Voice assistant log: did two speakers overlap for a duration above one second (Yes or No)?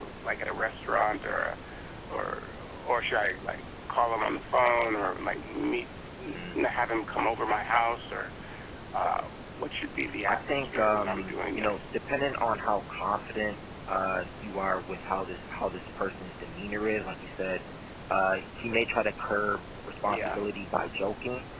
Yes